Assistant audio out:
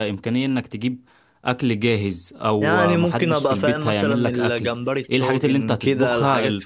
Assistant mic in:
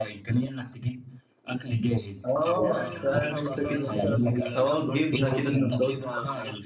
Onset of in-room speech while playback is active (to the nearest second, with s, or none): 2 s